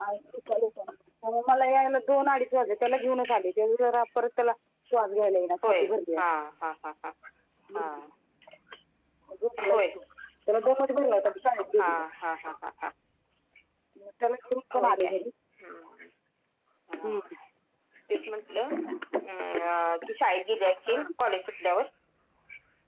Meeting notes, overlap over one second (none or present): none